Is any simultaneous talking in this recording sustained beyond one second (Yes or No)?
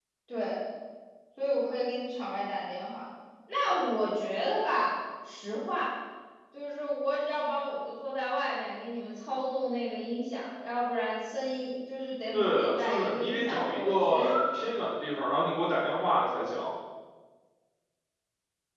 Yes